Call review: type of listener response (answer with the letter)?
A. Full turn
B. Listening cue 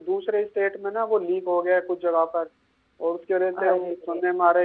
B